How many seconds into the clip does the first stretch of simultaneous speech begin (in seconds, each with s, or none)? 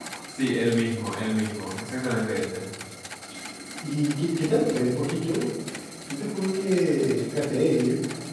none